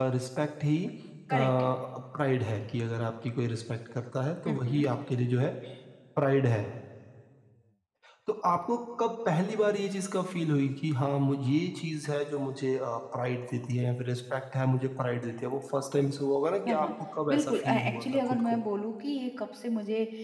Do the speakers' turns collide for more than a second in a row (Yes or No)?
Yes